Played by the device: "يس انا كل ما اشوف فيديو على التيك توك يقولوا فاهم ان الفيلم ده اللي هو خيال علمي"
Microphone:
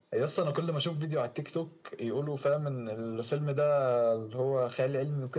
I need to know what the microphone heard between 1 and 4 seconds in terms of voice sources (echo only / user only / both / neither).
echo only